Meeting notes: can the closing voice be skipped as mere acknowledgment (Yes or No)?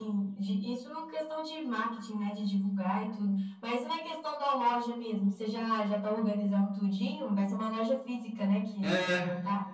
No